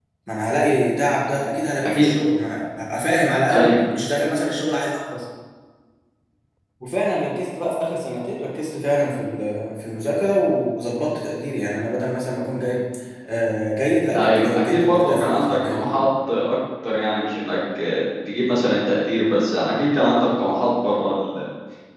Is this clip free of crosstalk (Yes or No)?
No